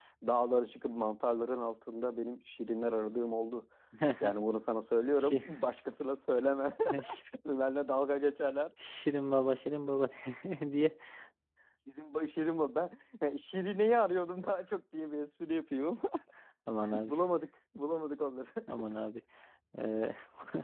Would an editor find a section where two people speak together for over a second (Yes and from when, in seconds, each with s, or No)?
No